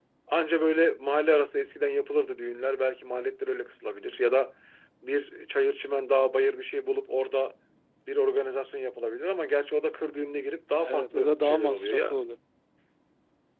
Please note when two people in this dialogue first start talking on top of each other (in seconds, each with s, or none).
10.8 s